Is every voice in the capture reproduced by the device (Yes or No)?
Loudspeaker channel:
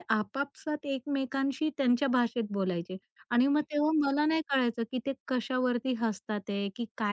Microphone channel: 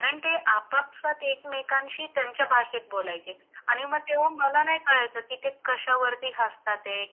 Yes